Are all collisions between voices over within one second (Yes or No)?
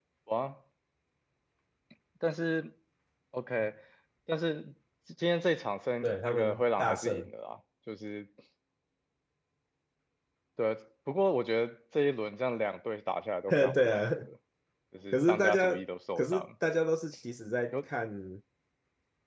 No